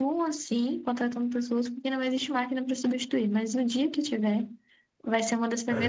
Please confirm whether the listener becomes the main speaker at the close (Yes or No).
No